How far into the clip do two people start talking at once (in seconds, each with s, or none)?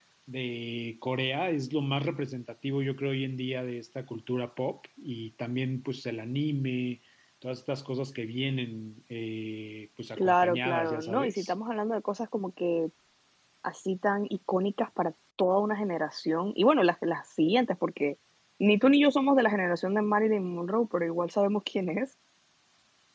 10.2 s